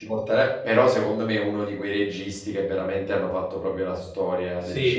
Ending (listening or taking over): taking over